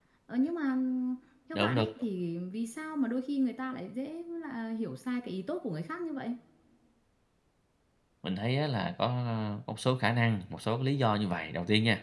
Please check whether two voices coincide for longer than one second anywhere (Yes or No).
No